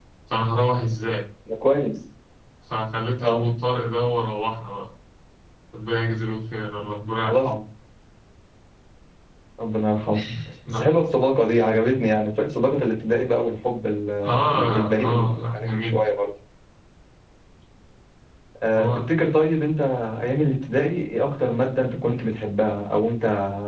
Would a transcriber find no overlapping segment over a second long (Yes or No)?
No